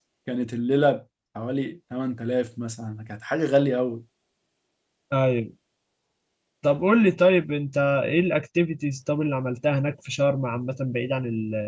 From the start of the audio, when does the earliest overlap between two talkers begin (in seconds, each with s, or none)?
none